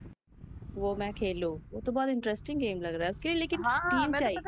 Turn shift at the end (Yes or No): Yes